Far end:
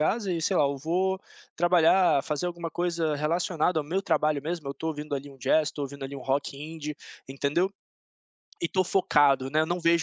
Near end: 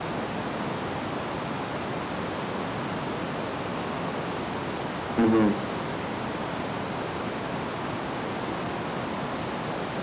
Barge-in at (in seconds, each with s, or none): 5.2 s